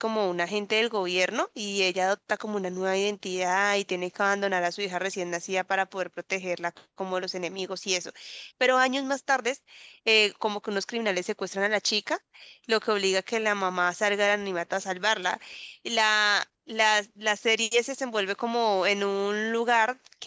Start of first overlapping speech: none

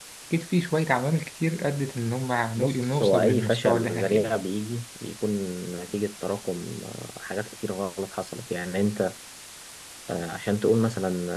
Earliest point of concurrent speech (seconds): 3 s

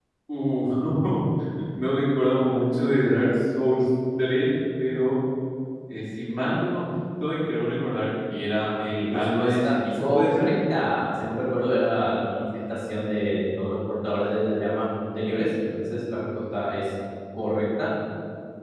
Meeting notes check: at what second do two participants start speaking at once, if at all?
9 s

